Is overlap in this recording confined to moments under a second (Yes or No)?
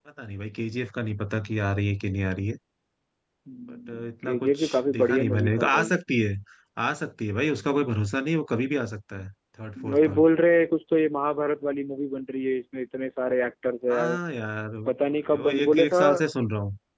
No